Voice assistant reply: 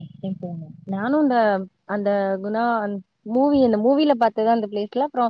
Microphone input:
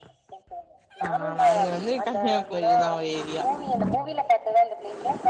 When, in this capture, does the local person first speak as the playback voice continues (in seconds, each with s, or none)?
1.0 s